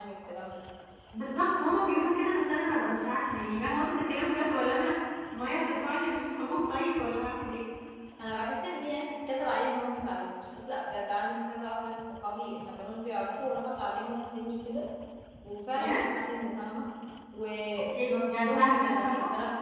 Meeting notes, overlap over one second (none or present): present